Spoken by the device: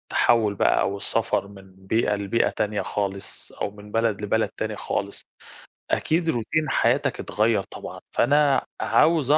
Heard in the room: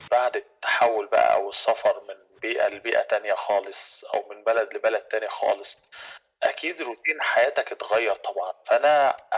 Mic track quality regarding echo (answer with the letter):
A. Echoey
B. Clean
A